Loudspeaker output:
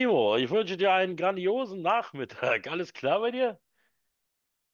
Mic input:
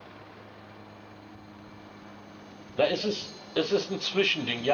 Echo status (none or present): none